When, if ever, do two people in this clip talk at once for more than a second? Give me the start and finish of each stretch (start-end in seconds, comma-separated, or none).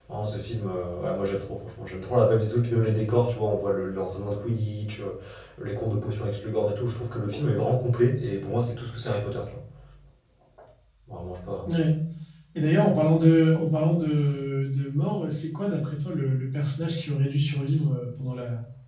none